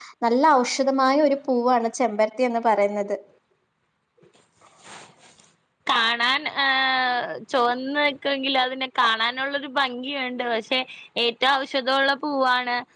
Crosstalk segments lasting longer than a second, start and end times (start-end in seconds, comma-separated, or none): none